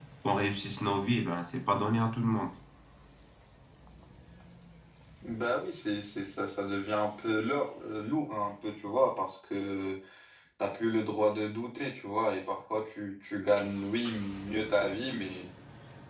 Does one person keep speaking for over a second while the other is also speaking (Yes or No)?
No